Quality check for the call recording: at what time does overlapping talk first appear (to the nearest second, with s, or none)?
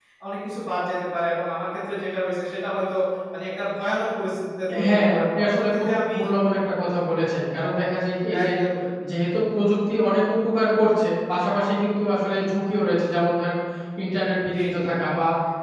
5 s